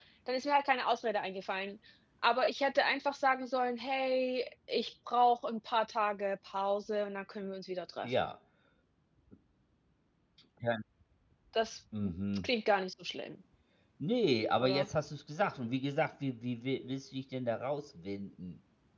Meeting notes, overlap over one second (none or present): none